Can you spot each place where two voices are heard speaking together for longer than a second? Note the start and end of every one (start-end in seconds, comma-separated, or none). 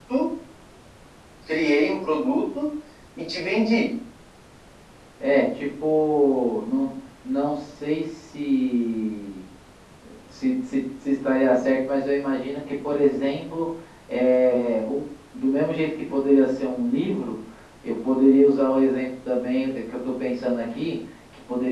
none